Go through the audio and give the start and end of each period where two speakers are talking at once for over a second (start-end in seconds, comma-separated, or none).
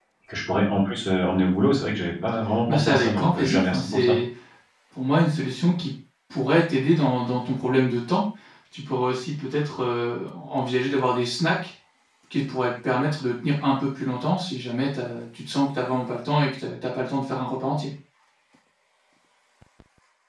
2.7-4.1